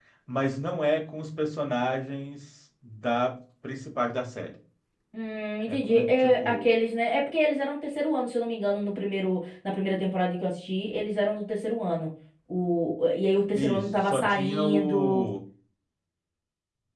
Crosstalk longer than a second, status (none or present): present